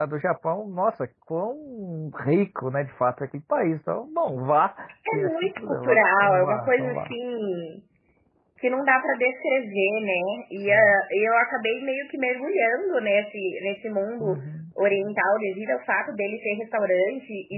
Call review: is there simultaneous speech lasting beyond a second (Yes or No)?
Yes